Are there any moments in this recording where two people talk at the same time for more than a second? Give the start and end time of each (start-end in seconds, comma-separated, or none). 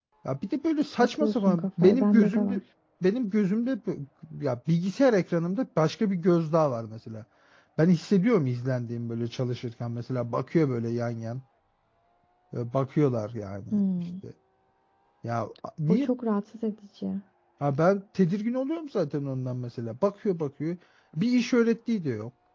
1.0-2.6